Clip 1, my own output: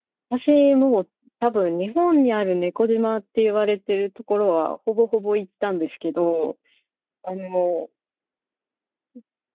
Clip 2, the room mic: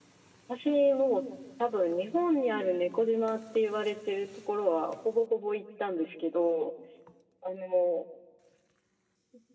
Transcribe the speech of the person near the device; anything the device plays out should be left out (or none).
none